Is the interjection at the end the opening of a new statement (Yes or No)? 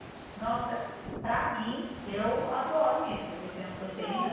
No